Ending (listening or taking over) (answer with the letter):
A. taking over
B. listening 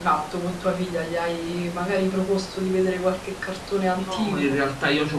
A